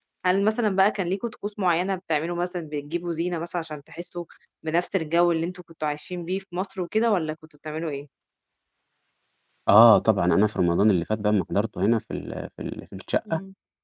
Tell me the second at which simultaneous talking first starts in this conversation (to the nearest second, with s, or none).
none